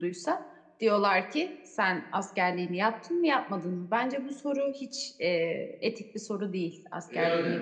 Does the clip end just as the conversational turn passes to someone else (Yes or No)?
Yes